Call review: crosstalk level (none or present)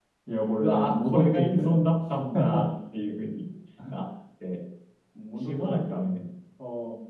present